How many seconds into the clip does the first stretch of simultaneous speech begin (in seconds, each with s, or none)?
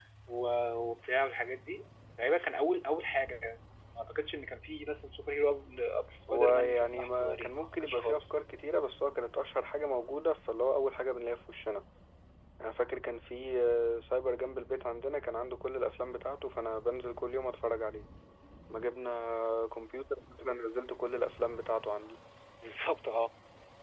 6.3 s